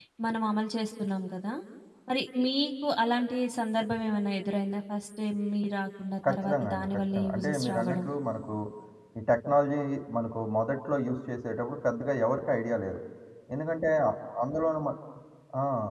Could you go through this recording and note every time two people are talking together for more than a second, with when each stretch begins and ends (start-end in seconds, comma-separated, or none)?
6.3-8.0